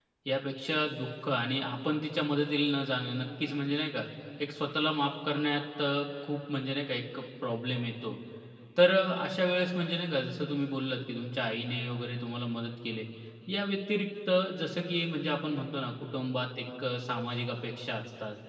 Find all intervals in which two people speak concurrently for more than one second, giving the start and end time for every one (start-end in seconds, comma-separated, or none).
none